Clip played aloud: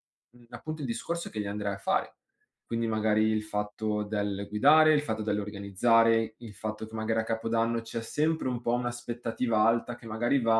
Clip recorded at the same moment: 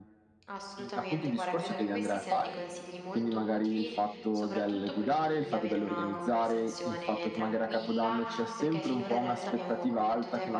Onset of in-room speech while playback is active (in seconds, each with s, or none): 0.4 s